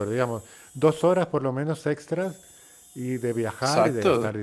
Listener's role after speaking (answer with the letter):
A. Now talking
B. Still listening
A